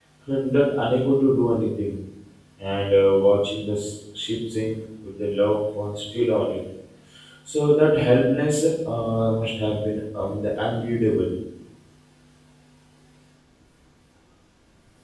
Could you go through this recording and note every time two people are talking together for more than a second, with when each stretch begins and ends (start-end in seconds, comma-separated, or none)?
none